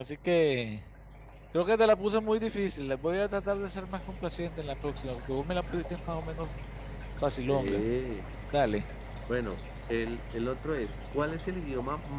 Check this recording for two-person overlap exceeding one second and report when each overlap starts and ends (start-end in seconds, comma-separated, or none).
none